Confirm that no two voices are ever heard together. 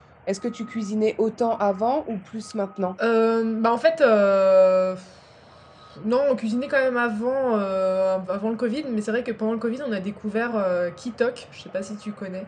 Yes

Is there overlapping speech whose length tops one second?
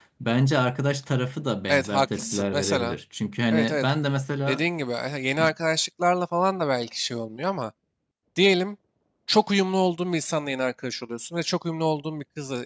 Yes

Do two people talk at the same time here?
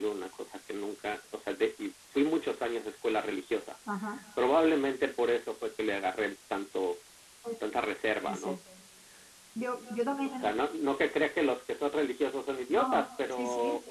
Yes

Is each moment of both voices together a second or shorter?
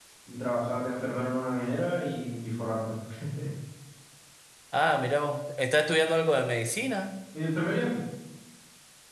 Yes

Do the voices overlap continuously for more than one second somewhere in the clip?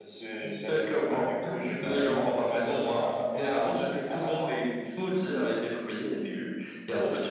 Yes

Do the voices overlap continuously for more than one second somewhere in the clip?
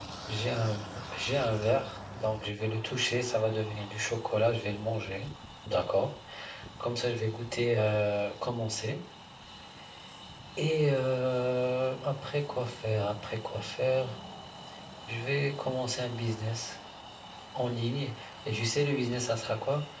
No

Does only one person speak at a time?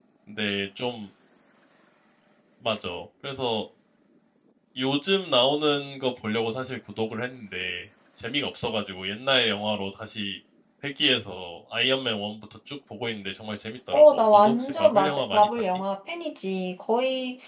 No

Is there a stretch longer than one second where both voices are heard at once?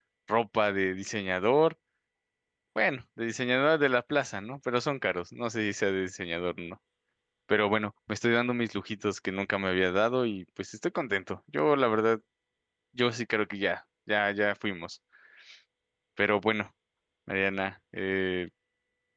No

